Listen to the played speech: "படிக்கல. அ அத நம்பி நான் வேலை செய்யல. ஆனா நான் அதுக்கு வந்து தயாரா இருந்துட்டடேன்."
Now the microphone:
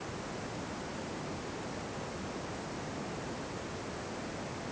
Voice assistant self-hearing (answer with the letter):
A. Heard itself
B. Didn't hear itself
B